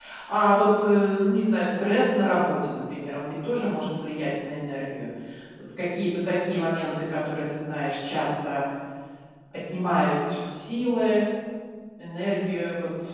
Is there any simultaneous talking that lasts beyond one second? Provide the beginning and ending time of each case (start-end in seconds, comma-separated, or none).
none